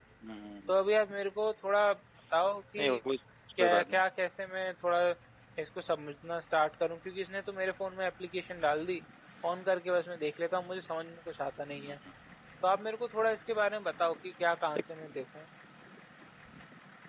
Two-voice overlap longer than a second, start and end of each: none

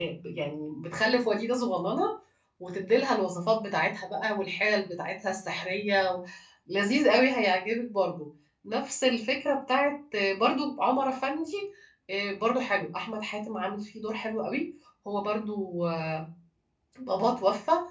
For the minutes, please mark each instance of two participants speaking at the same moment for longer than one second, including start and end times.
none

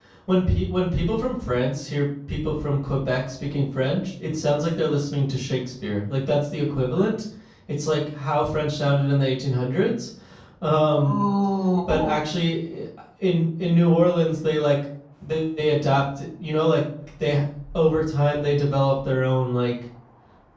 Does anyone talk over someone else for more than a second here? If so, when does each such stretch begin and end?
none

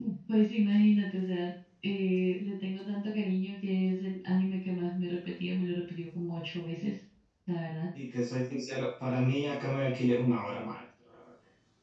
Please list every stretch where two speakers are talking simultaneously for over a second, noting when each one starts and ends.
none

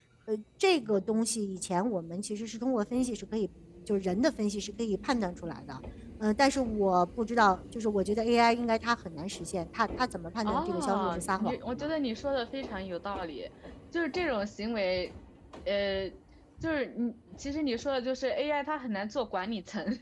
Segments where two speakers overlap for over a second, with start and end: 10.4-11.9

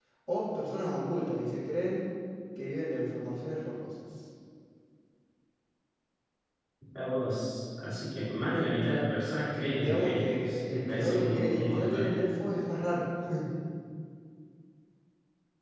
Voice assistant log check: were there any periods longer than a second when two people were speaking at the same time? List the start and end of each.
9.8-12.1

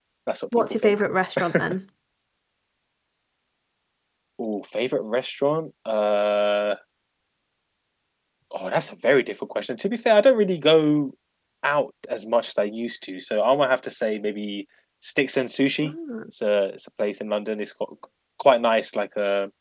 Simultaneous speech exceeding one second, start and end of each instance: none

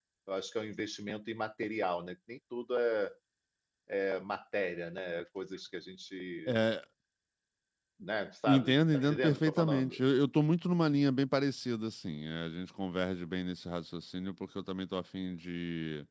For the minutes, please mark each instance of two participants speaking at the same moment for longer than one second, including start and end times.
8.5-10.0

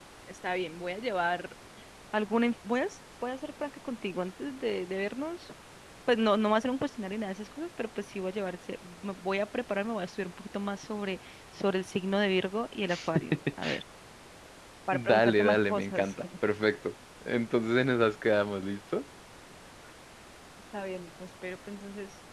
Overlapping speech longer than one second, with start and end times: 14.9-16.2

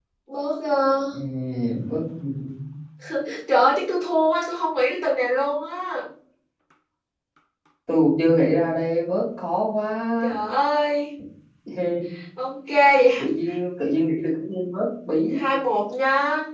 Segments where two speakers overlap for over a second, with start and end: none

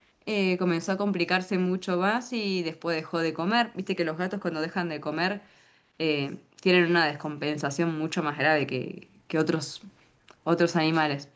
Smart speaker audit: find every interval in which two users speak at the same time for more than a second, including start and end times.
none

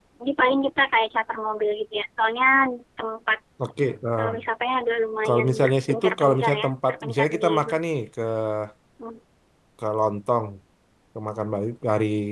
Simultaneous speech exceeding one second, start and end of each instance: 5.2-7.8

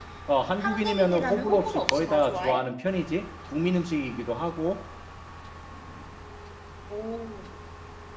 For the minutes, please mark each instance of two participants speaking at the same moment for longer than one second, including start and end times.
0.6-2.7

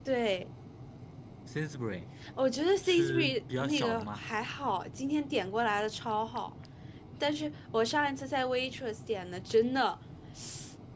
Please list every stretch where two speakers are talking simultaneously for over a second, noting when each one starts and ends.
2.8-4.2

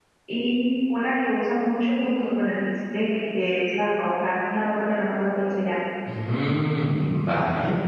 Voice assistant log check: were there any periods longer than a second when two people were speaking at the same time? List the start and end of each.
none

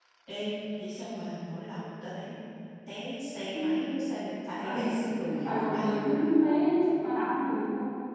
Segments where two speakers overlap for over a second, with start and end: none

